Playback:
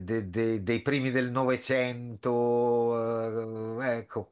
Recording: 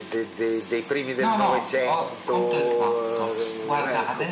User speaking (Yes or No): Yes